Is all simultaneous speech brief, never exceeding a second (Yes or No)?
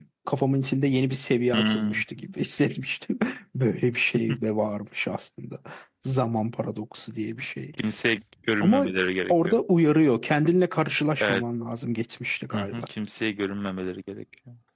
Yes